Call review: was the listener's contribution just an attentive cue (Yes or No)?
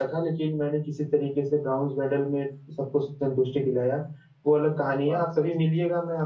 Yes